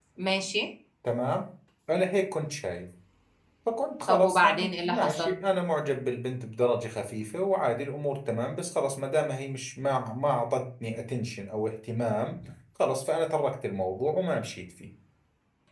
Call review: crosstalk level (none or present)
present